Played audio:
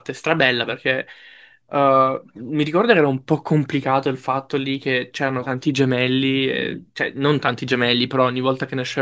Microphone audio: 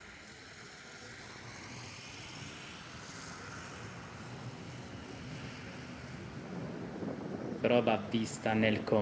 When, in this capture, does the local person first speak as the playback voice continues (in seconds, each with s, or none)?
7.6 s